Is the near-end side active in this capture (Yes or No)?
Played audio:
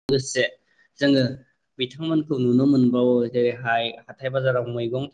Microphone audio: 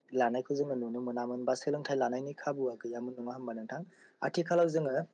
Yes